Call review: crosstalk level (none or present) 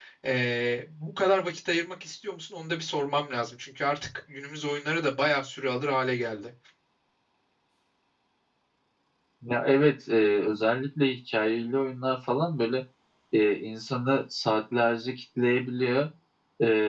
none